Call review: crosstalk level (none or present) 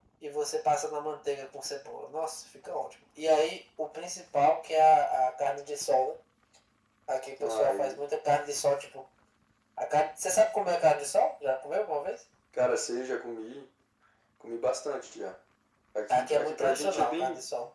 present